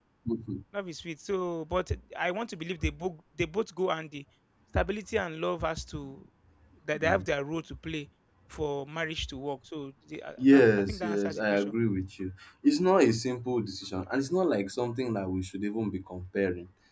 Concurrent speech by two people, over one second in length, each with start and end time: 10.5-11.7

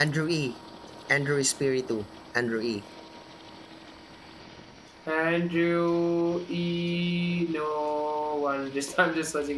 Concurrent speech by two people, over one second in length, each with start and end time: none

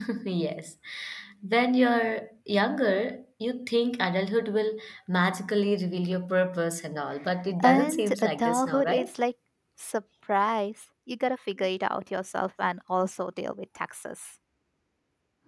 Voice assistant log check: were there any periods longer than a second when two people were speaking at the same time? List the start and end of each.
7.6-9.2

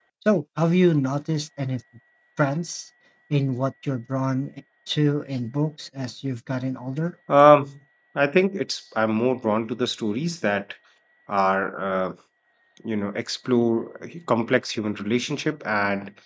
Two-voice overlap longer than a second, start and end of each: none

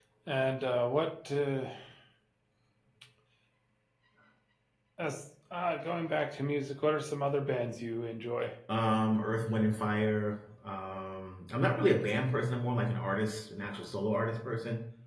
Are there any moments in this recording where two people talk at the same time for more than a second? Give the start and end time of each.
none

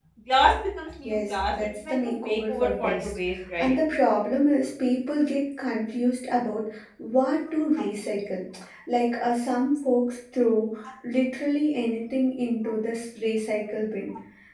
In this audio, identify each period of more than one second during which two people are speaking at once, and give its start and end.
1.0-3.1

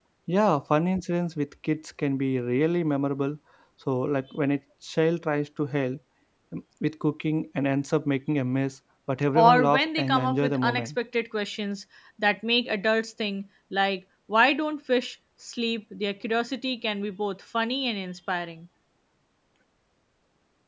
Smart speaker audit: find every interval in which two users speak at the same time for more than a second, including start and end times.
9.3-10.9

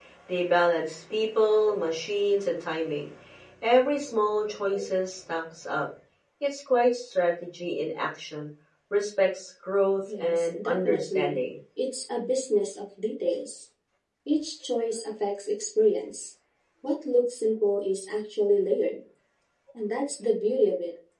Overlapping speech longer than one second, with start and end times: 10.2-11.4

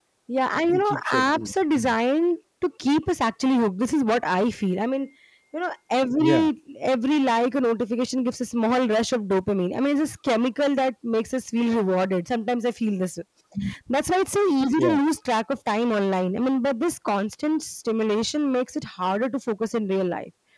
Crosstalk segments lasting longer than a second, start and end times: 0.7-1.9

